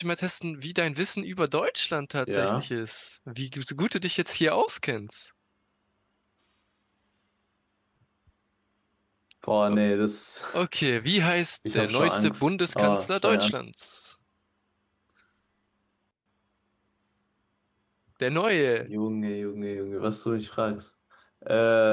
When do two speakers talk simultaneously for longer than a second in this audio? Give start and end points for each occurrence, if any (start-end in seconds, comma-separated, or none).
11.7-13.5